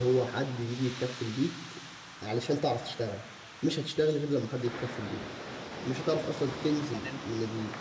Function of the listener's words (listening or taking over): listening